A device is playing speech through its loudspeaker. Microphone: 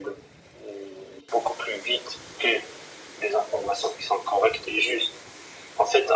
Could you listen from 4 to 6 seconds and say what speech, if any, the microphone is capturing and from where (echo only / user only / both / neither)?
echo only